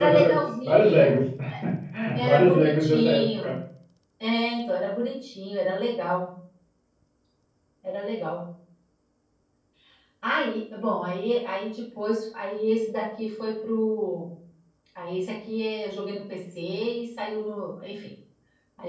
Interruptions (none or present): present